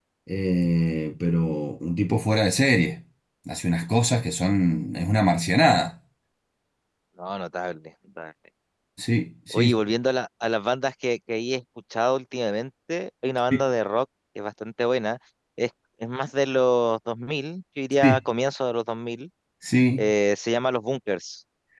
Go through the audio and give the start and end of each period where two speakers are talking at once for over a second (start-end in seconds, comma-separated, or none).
none